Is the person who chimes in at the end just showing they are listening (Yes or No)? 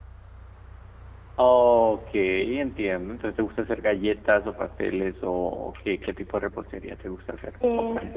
No